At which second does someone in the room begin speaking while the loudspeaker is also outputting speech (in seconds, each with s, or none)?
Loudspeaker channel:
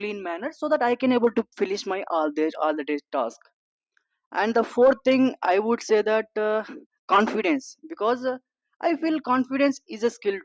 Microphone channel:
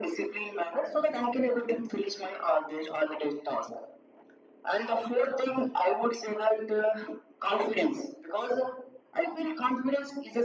none